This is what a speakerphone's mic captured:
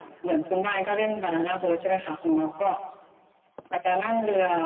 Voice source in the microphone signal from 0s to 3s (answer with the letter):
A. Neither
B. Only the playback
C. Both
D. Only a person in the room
B